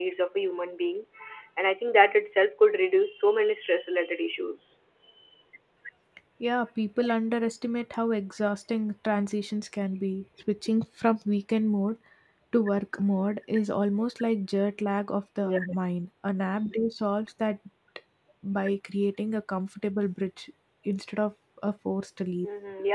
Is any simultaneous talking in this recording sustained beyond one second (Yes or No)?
No